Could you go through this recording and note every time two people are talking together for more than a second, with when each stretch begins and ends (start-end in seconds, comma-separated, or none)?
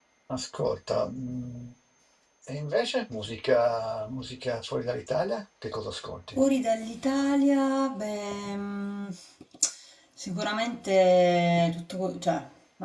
none